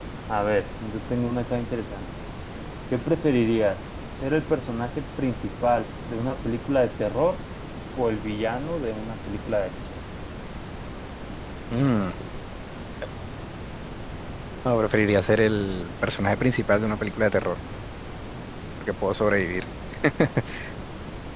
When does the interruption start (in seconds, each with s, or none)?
none